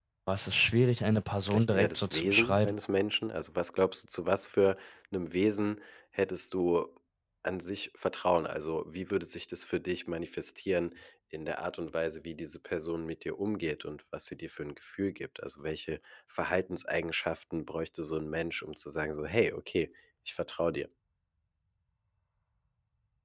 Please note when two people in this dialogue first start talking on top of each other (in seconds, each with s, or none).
1.5 s